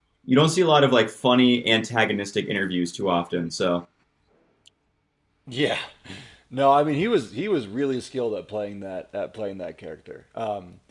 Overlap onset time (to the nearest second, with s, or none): none